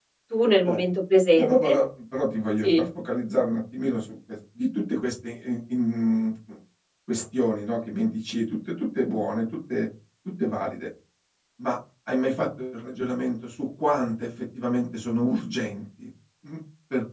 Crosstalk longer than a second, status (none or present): none